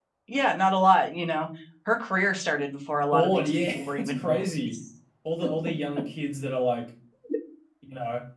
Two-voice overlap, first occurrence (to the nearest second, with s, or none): 3 s